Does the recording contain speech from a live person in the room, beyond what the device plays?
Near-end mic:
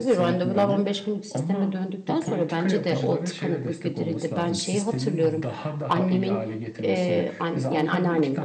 Yes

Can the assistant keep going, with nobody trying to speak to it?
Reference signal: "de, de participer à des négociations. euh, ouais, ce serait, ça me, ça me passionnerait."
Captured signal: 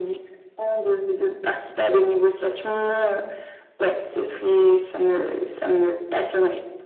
Yes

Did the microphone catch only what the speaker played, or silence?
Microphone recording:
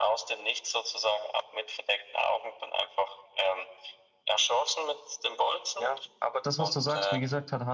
No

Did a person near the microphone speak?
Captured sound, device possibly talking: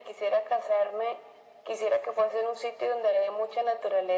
No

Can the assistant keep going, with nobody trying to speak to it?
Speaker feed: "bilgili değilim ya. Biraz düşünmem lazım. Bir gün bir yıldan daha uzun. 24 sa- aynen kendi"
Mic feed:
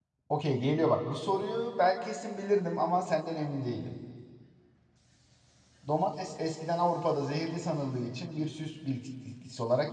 No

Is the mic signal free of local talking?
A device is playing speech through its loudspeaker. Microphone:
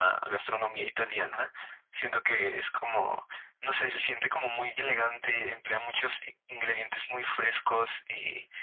Yes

